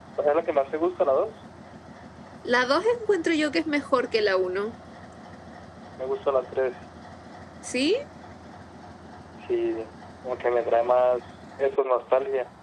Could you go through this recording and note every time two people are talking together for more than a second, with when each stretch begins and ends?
none

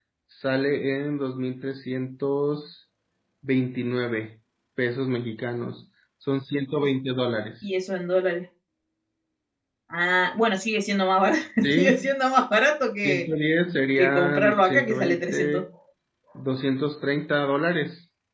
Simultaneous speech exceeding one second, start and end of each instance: 14.0-15.6

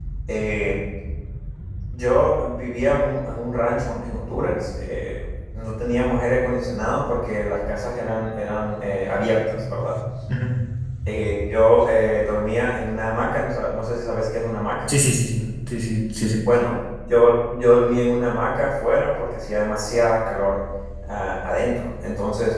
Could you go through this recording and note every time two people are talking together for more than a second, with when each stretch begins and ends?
none

